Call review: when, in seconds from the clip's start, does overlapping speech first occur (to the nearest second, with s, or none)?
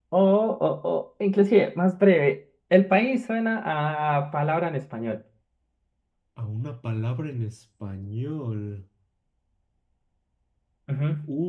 none